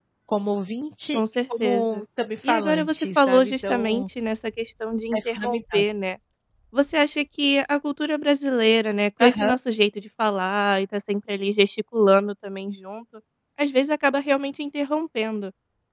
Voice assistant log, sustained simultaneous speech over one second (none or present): present